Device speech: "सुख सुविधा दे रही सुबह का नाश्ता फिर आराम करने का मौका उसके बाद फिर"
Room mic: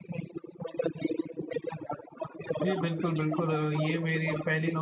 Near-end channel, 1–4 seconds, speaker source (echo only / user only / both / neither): both